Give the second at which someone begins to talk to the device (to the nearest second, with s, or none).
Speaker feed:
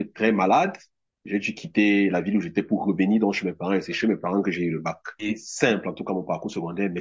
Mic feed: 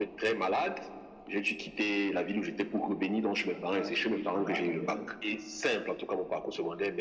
3 s